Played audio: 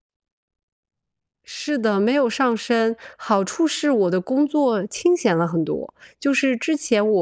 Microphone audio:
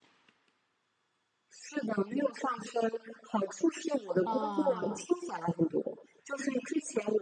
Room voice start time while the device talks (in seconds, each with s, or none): 4.2 s